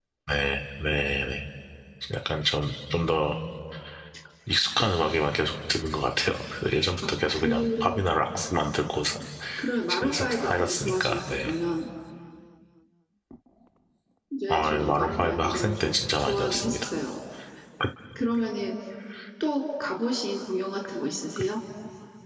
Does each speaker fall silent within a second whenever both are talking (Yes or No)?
No